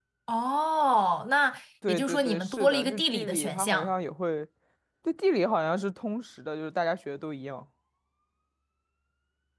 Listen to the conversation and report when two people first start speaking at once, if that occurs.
1.8 s

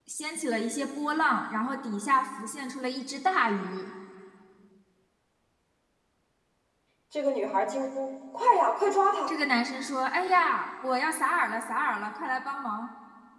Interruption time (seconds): none

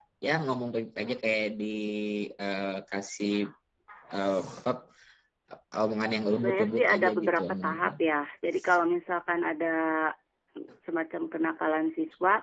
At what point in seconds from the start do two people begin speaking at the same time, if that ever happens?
6.4 s

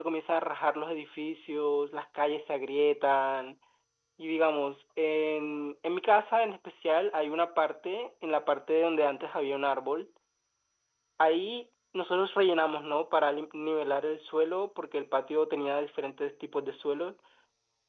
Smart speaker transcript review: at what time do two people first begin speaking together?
none

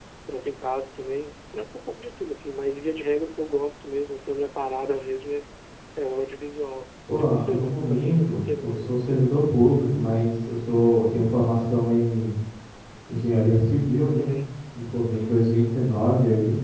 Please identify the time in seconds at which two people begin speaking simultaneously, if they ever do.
7.1 s

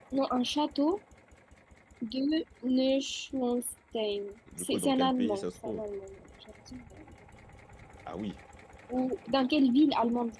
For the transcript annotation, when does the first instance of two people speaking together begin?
4.5 s

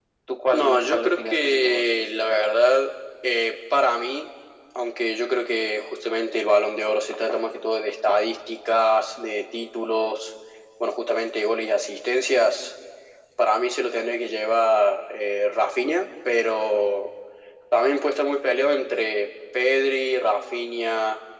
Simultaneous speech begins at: 0.5 s

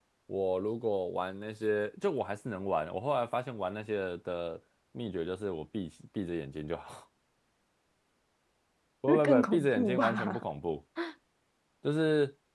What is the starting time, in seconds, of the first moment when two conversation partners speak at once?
9.1 s

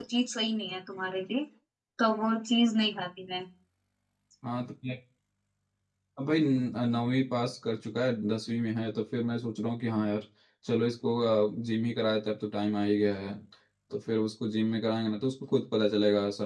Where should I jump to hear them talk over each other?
none

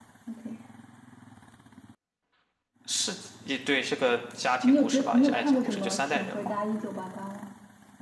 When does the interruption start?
4.6 s

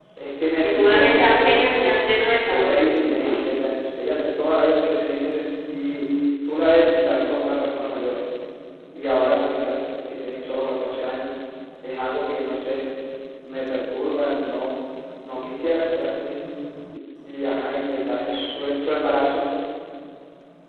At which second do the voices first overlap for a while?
0.6 s

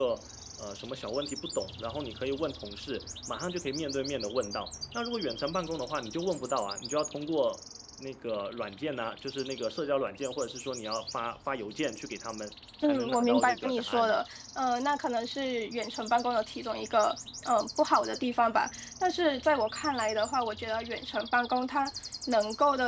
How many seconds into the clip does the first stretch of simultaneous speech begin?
12.8 s

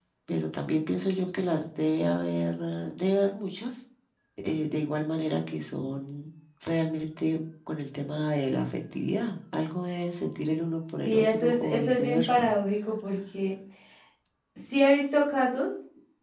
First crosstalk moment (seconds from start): 11.1 s

